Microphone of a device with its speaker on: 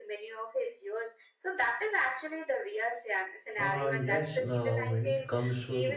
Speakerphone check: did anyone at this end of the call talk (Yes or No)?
Yes